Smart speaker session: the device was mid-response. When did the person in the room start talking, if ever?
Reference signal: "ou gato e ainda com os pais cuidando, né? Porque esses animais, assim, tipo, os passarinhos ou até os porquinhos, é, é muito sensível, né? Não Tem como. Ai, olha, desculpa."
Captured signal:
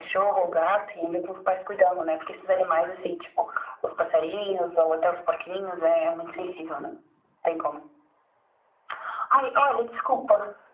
none

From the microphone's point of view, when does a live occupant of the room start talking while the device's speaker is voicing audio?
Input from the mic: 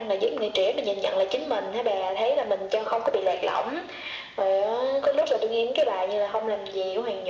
none

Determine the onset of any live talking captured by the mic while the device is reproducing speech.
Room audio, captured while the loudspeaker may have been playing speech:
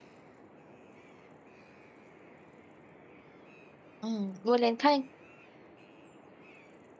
4.0 s

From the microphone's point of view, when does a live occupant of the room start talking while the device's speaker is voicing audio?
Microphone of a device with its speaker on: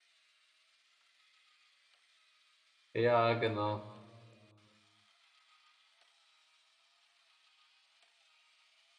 2.9 s

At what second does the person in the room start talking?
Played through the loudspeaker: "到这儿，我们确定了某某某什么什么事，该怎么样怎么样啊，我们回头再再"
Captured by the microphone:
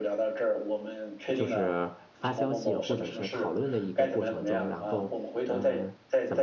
1.3 s

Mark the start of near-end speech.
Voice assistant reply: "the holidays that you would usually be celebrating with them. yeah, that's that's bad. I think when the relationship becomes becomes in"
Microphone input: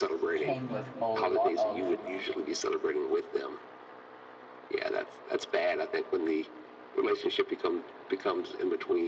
0.3 s

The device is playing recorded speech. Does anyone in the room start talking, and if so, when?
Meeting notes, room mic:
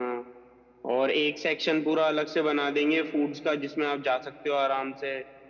none

